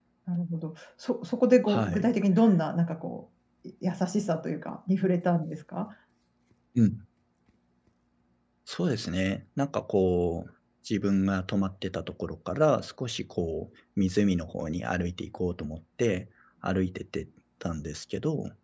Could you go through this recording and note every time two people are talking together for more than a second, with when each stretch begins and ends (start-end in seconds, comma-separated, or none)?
none